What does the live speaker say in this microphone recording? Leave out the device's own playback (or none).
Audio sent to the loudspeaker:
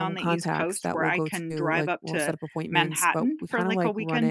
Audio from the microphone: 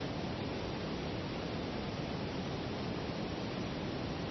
none